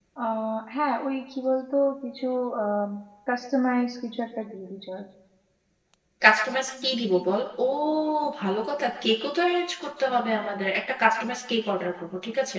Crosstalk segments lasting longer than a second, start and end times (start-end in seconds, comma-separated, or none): none